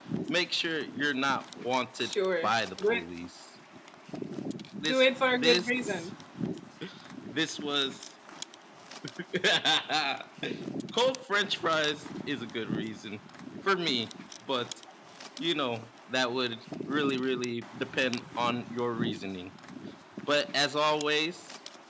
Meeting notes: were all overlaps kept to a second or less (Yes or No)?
No